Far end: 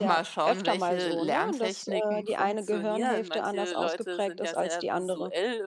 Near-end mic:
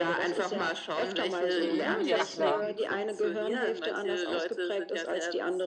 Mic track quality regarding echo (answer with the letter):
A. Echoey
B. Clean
A